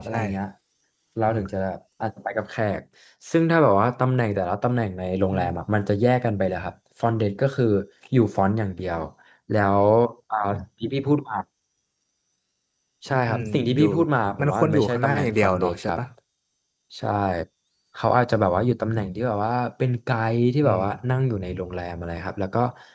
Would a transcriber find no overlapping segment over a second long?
No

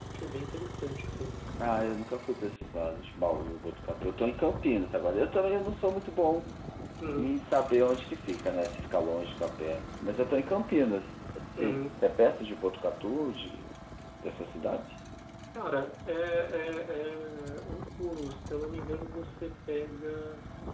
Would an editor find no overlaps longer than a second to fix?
Yes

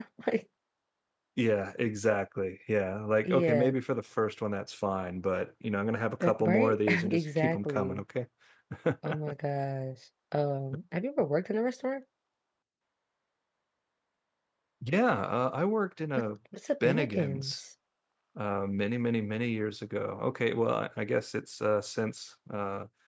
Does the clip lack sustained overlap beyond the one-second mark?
No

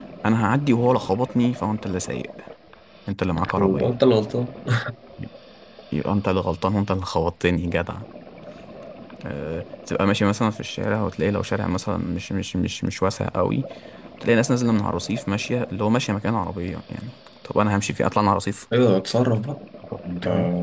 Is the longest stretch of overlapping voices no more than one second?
Yes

